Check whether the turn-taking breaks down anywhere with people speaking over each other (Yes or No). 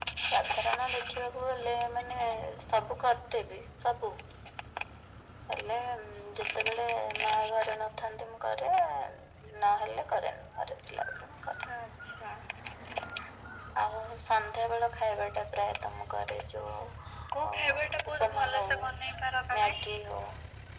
Yes